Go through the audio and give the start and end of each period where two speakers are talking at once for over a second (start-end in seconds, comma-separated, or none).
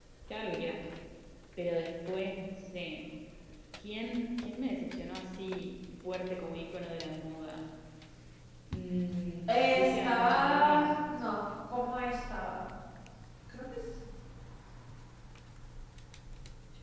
9.5-10.9